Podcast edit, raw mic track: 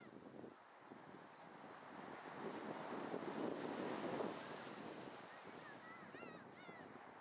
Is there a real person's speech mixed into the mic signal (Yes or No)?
No